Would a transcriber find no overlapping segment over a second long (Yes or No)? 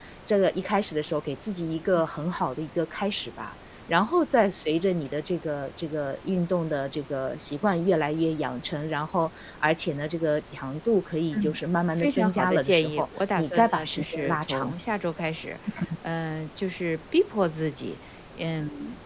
No